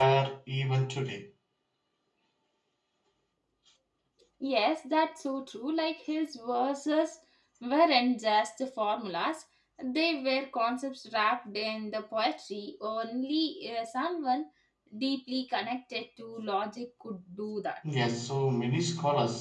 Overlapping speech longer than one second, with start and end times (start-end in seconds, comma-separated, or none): none